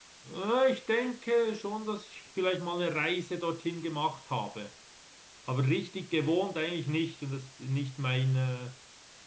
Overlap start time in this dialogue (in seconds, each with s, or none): none